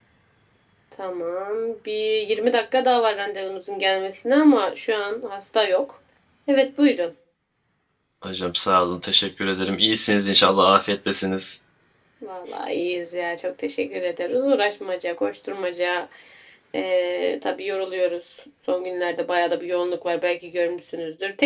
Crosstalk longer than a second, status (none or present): none